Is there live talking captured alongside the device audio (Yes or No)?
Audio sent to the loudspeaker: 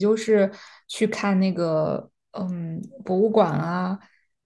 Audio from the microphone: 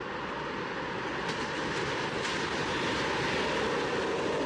No